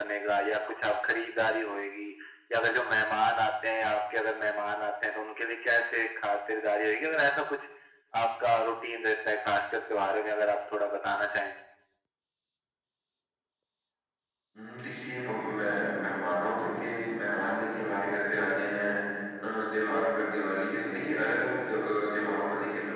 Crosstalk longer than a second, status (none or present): none